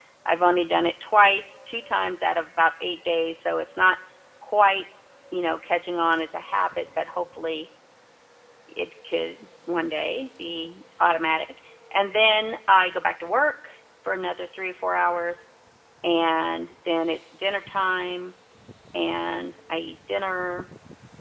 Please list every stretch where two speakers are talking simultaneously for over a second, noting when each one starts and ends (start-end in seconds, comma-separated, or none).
none